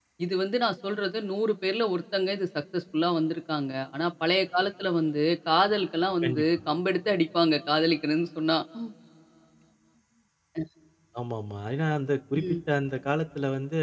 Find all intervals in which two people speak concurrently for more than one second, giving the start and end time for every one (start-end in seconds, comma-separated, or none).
none